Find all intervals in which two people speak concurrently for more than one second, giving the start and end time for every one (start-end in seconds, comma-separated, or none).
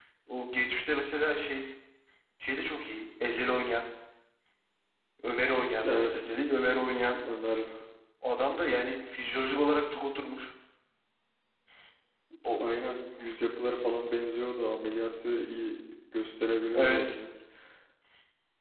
none